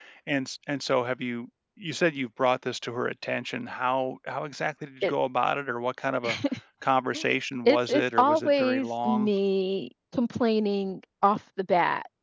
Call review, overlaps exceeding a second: present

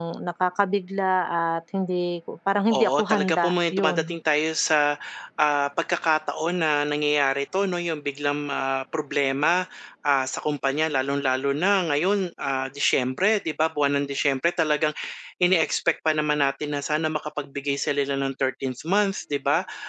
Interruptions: present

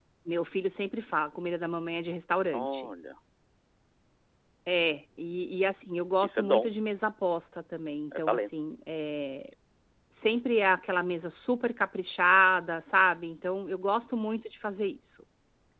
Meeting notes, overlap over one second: none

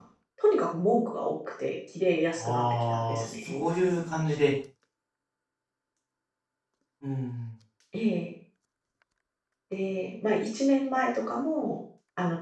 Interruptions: present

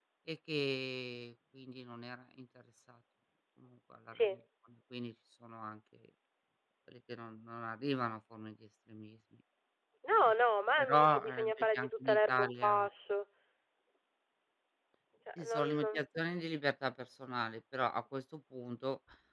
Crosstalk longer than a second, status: present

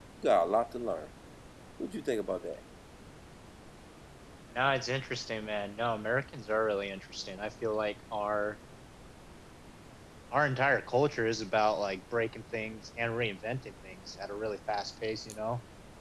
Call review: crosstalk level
none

